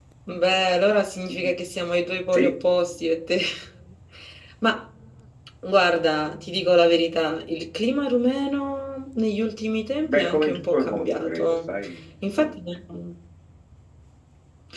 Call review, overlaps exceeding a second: present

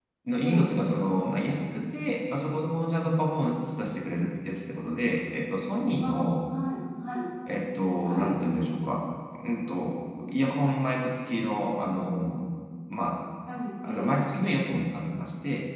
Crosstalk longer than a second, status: none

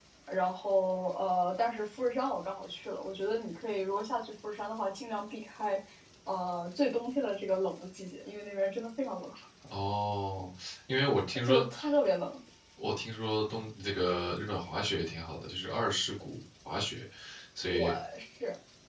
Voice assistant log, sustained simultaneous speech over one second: none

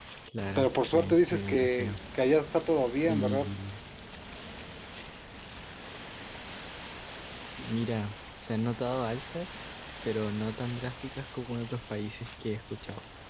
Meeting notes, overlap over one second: present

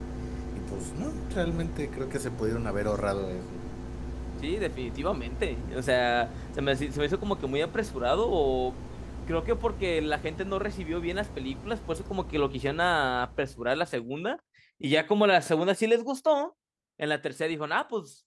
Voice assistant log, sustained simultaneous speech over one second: none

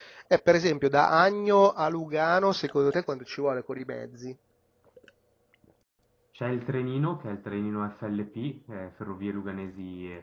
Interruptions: none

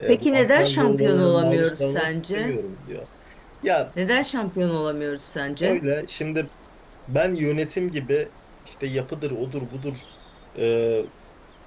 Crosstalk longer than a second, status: present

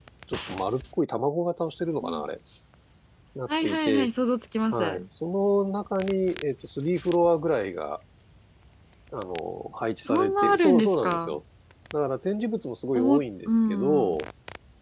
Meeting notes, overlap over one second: present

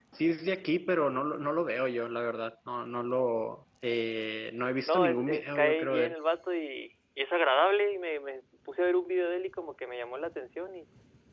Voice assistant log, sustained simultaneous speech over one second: present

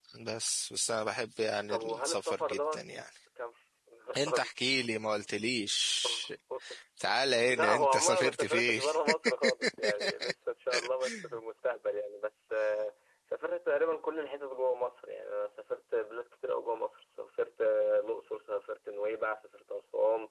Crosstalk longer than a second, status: present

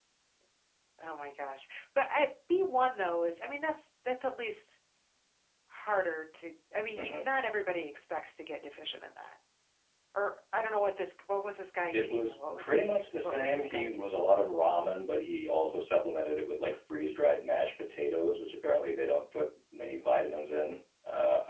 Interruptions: present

